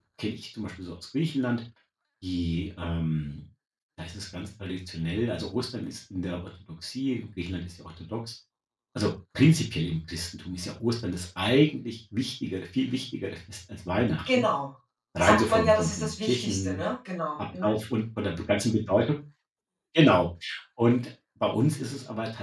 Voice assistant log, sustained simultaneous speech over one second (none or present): present